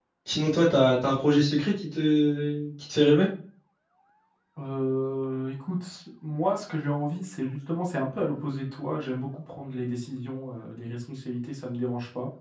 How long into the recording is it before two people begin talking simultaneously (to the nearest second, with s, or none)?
none